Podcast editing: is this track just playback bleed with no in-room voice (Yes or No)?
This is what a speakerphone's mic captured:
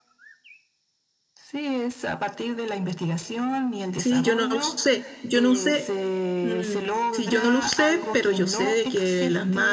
No